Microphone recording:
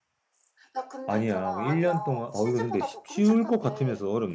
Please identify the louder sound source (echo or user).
user